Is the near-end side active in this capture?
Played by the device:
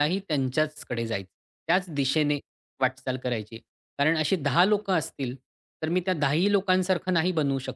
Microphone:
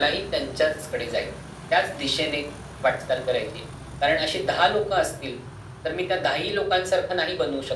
No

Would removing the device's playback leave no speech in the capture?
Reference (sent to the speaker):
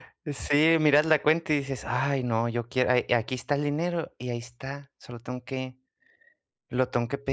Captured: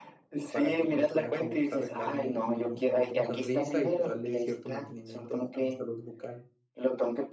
No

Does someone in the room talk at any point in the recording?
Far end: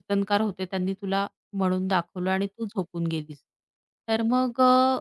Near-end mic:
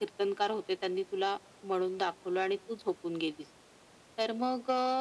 No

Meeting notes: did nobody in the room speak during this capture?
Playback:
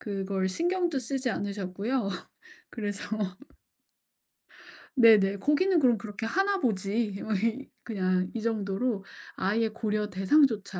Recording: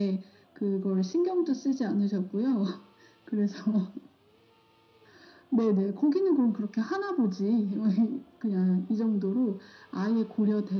Yes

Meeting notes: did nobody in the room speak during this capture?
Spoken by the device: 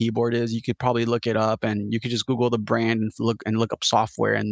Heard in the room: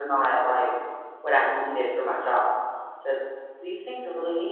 No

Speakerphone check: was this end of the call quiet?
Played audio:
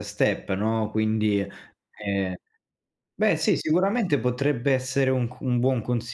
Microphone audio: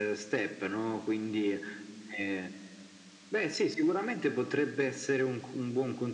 Yes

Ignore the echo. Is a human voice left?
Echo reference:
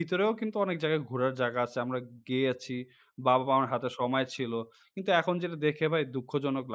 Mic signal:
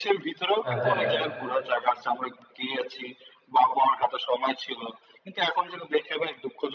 Yes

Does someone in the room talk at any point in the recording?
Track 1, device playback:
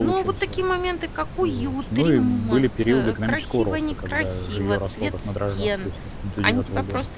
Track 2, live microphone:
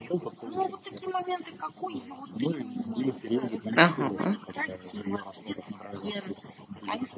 Yes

